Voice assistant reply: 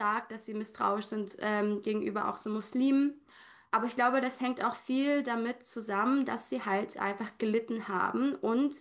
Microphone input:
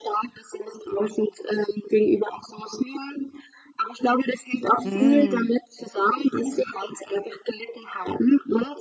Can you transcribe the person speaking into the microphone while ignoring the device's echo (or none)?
Mhm.